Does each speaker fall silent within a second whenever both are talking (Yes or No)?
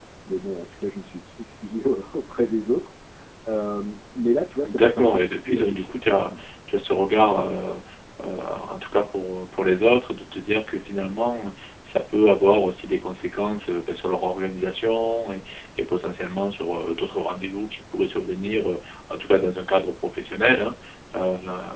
No